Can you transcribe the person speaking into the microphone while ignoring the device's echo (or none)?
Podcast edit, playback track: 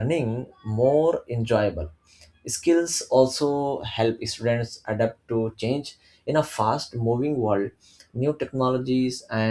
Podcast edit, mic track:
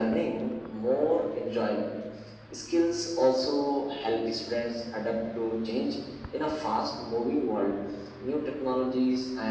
none